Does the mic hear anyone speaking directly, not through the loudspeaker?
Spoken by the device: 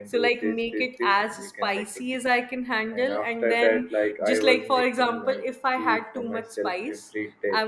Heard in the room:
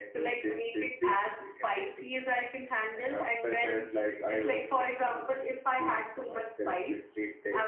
No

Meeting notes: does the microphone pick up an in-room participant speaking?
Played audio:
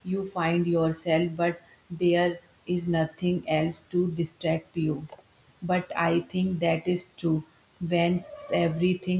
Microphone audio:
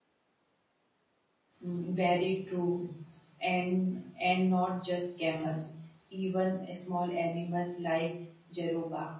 Yes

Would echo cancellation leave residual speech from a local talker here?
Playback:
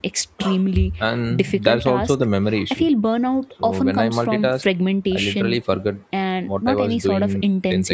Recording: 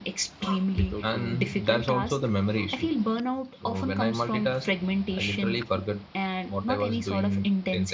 Yes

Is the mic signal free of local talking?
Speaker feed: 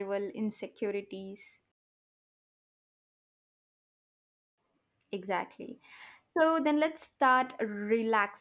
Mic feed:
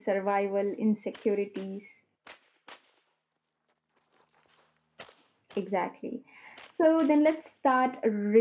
Yes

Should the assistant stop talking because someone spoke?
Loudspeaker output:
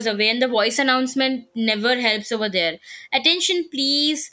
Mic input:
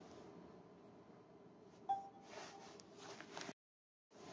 No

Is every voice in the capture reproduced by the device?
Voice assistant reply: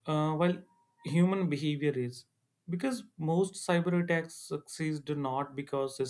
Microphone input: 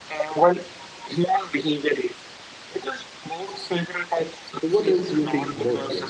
No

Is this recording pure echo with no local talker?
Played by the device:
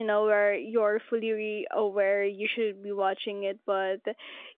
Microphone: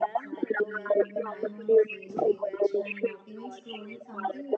No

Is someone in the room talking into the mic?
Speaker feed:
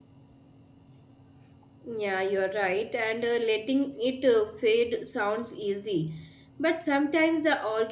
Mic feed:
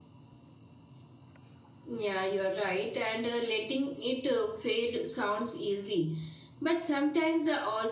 No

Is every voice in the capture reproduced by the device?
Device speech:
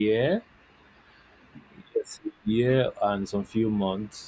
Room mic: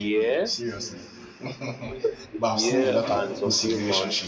No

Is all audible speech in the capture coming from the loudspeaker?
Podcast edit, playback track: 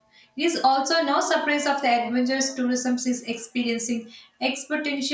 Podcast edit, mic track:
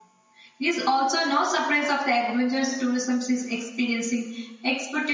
Yes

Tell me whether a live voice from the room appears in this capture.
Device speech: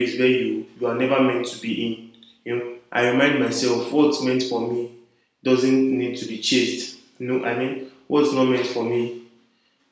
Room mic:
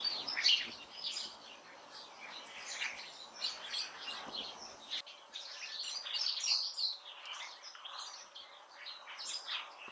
No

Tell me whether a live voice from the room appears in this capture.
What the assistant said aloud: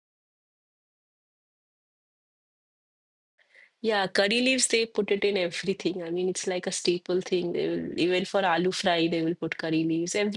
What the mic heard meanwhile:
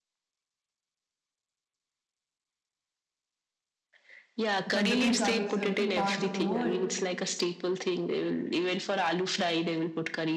Yes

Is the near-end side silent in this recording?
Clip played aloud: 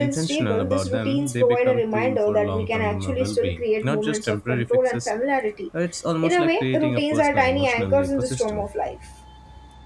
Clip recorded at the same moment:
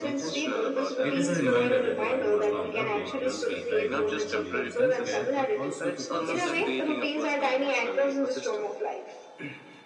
No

